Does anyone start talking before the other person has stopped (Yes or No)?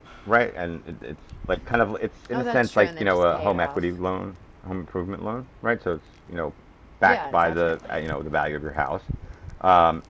Yes